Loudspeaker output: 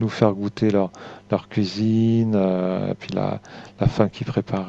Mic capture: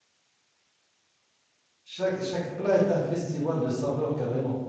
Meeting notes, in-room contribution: present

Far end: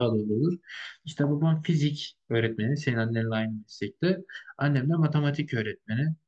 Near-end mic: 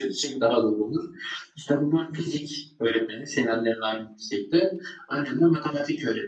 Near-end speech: none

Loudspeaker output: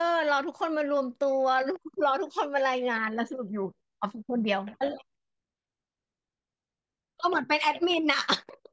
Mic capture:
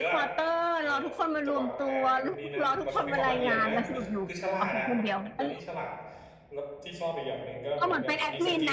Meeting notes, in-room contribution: present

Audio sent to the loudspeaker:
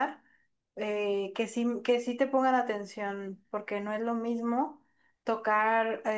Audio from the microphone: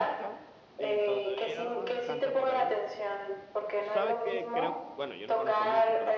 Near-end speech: present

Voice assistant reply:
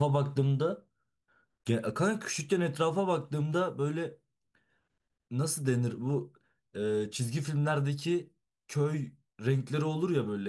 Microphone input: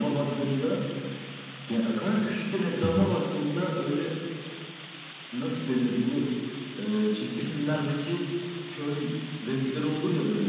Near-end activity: present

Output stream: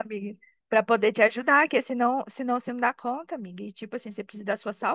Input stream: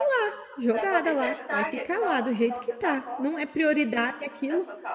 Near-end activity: present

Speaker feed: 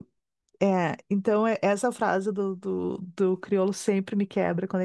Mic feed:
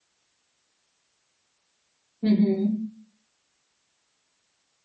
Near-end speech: present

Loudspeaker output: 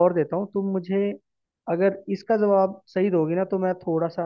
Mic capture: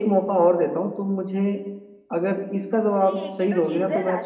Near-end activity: present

